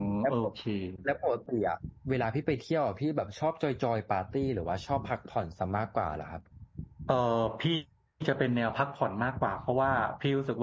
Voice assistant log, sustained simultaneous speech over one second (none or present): none